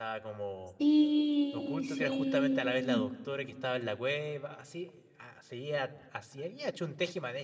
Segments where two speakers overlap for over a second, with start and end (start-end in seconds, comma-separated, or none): 1.5-3.0